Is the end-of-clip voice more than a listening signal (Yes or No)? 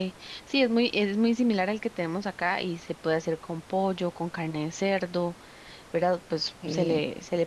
No